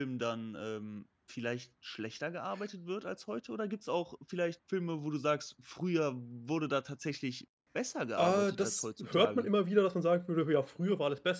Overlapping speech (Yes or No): Yes